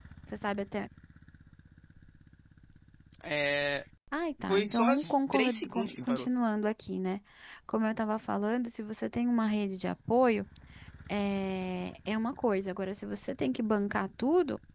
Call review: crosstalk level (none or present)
present